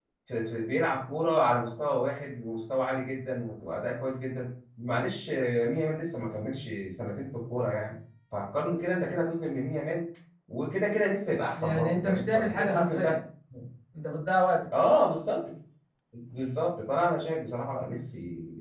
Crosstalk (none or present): present